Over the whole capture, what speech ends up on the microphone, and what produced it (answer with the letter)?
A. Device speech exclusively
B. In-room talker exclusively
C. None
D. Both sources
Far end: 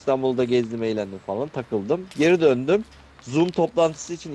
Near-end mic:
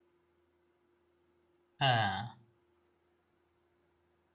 B